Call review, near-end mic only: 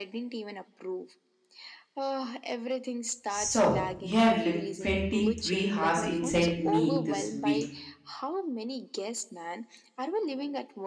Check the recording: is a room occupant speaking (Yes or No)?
Yes